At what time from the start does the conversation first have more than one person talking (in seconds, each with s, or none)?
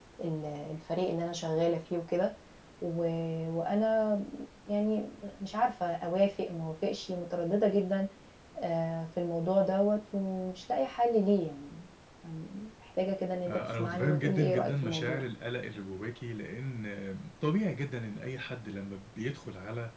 13.5 s